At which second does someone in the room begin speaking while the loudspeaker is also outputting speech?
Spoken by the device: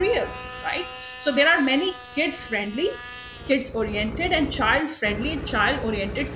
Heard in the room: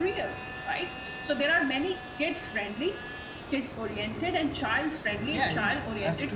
5 s

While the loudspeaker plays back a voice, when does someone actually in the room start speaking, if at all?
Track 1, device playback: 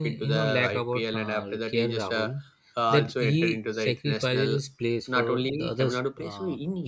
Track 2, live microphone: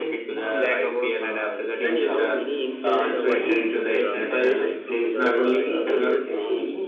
2 s

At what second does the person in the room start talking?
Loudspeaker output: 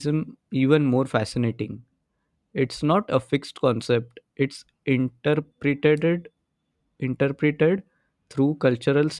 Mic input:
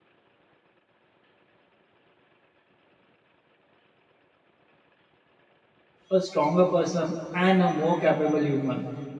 6 s

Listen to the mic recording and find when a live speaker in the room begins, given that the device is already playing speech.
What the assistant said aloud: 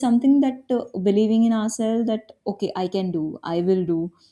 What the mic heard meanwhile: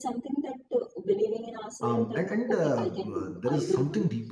2 s

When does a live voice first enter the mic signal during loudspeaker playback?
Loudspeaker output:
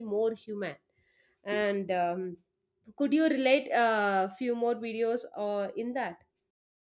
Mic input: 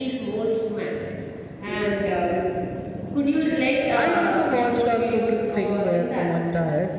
4 s

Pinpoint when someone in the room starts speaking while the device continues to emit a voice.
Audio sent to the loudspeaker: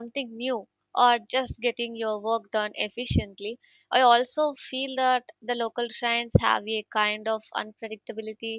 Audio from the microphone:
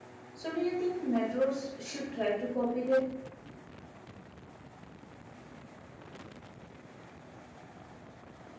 0 s

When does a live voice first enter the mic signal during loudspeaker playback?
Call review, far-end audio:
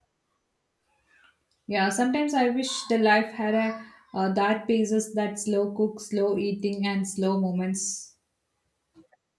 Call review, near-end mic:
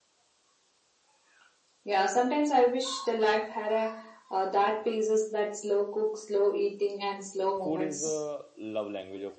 8 s

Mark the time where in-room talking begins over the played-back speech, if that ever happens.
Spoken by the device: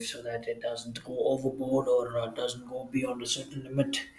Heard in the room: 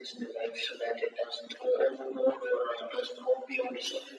none

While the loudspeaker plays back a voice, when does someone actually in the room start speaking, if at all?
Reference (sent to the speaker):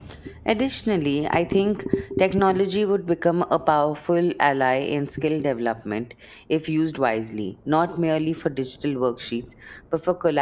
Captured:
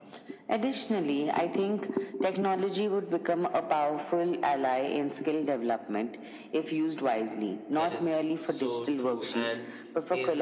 8 s

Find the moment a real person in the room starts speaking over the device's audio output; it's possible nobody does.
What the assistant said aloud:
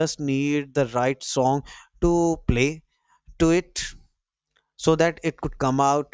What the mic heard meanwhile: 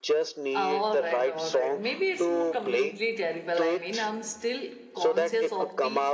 1 s

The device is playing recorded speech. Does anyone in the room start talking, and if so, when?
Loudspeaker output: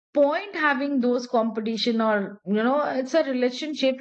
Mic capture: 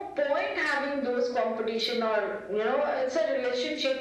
none

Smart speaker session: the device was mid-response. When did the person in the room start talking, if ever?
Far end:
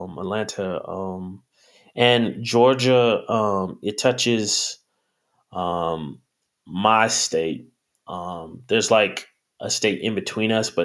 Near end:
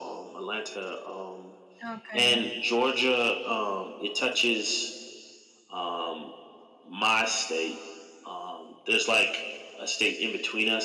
2 s

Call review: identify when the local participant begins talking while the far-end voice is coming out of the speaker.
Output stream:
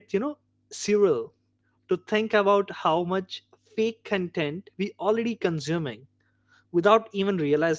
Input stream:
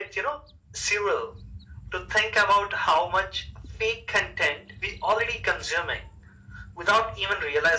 none

